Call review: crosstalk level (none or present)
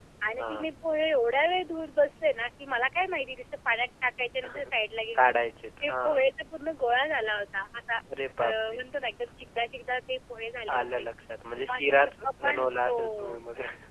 present